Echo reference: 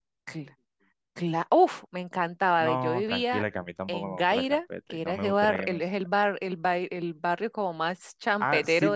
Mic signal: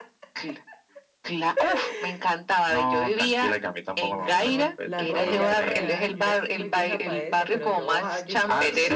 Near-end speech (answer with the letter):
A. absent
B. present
B